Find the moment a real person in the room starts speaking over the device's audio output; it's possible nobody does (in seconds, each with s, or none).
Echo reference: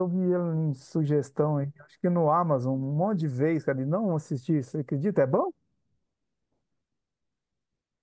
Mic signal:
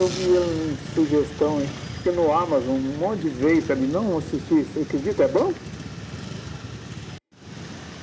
none